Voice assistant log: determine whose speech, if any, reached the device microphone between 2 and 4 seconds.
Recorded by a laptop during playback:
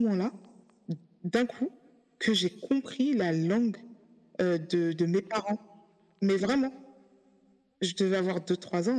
echo only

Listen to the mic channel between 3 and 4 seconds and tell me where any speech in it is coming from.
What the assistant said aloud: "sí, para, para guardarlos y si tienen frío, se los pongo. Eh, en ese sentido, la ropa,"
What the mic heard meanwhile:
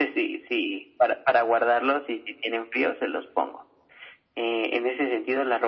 echo only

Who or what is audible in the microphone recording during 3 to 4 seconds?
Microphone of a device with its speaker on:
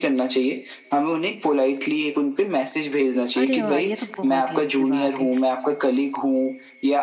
both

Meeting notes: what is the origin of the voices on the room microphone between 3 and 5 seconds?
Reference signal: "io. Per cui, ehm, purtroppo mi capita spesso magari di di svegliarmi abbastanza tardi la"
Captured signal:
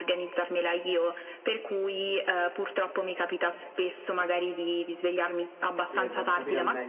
echo only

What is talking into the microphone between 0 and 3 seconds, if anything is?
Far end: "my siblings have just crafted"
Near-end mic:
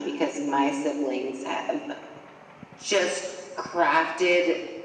echo only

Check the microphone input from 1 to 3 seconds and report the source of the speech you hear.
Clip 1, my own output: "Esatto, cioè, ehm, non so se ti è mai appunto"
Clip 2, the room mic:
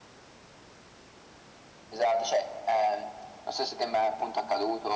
echo only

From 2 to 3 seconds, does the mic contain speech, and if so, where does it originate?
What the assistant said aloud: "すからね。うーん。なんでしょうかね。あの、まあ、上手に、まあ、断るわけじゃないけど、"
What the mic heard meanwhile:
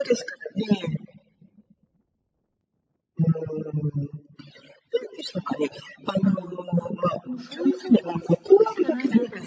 neither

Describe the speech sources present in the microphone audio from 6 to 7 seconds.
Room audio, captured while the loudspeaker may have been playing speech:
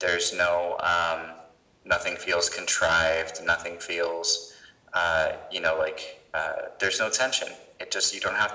echo only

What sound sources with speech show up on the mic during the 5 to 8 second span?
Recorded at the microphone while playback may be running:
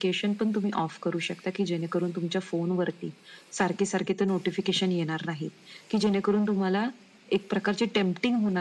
echo only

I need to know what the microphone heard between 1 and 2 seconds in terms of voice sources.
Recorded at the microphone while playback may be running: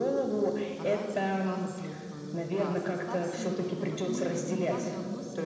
both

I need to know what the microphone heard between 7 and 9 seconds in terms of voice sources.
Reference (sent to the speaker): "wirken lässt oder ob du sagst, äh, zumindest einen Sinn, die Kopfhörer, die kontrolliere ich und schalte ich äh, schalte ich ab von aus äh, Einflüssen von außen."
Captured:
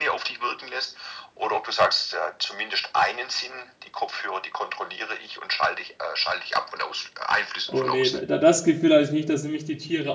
both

